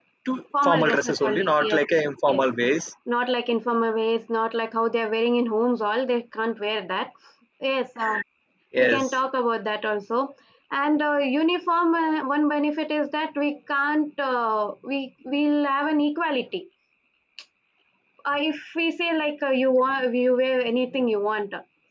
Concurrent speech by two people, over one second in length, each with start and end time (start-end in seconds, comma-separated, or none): 0.6-1.8